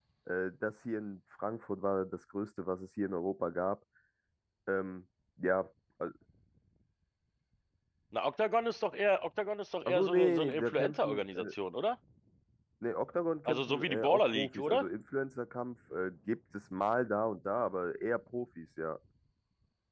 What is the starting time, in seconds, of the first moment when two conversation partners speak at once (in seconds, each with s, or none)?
9.9 s